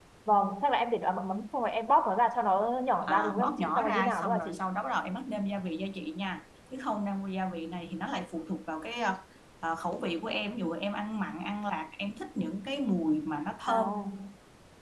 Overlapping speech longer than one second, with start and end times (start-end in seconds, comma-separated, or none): 3.1-4.6